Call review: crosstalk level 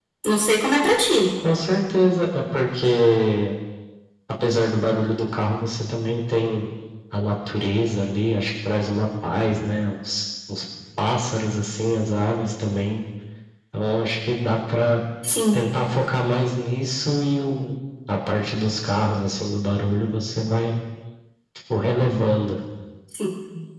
none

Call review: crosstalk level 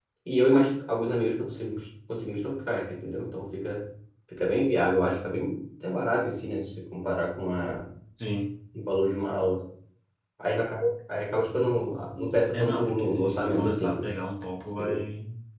present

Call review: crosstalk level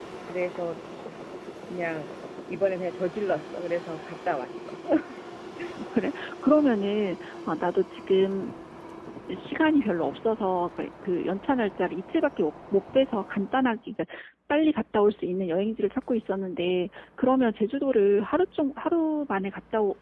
none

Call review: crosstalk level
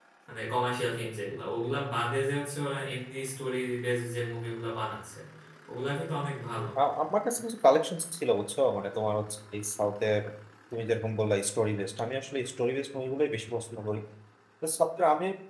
none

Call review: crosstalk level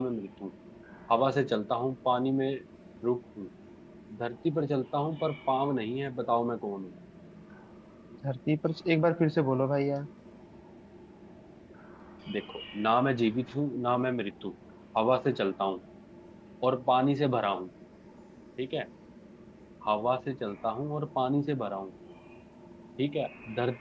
none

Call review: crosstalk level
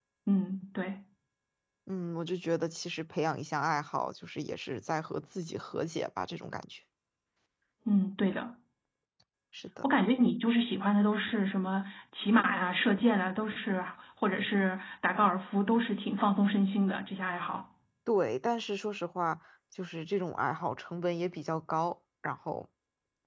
none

